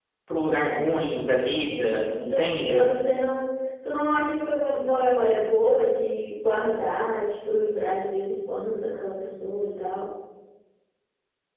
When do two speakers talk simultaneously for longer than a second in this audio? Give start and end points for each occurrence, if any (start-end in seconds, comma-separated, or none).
1.6-2.8